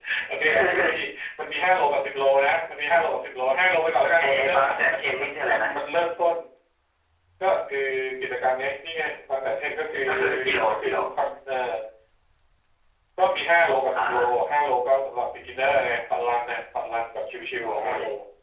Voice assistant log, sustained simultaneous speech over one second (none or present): present